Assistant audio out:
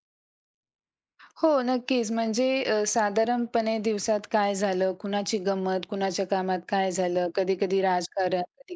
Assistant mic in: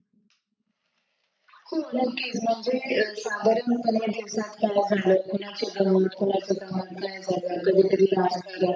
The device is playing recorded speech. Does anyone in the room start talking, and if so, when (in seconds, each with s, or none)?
none